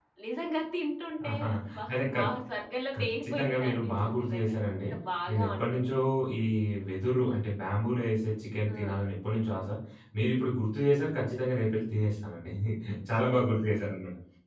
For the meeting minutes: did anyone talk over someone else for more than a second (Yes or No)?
Yes